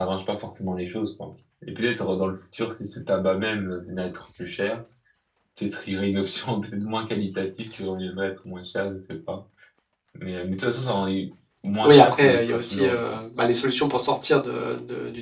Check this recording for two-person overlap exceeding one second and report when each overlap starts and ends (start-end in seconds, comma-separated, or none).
11.8-13.2